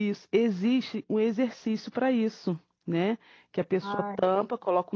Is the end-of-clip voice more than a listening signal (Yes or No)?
No